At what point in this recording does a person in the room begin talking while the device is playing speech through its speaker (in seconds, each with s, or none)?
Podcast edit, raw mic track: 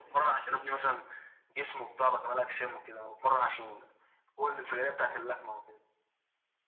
none